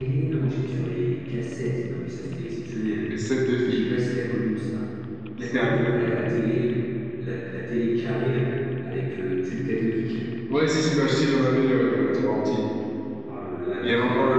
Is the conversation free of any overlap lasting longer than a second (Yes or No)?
Yes